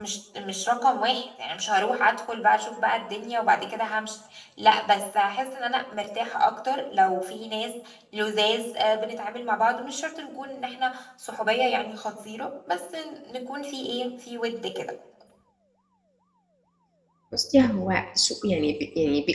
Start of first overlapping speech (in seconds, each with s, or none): none